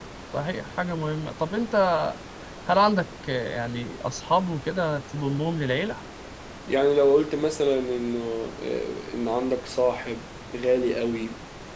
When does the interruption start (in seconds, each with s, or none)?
none